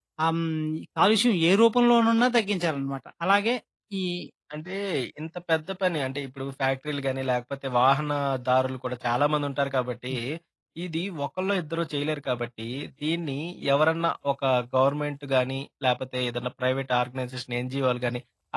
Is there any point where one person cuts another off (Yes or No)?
No